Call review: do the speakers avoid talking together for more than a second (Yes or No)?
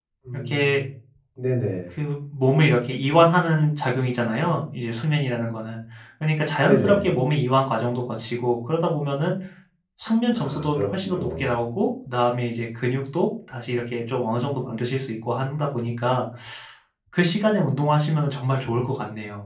No